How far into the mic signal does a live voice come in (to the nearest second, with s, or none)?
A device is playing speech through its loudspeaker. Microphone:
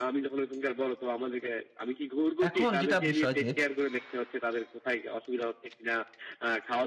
2 s